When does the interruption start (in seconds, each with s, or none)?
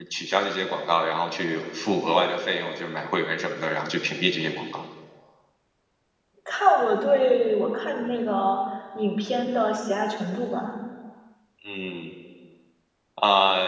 none